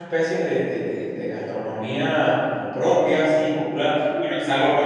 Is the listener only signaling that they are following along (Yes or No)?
Yes